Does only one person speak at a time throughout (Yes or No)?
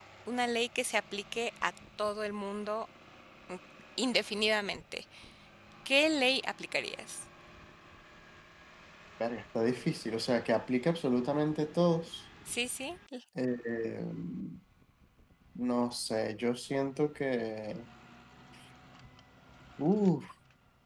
Yes